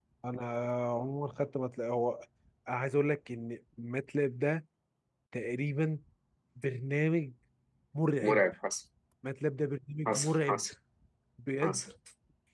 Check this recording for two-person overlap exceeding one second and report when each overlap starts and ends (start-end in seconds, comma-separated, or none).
none